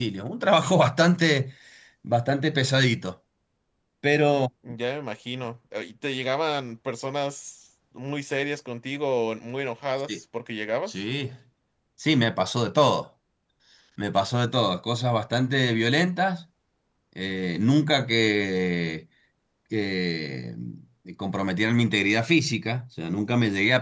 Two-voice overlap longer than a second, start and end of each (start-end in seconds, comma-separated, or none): none